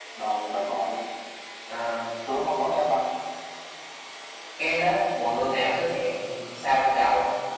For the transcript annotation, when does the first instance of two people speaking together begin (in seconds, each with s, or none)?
none